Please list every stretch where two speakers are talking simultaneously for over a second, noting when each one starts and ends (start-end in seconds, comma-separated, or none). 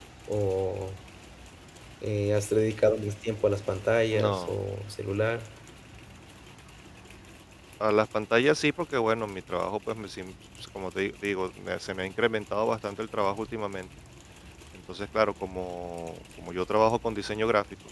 none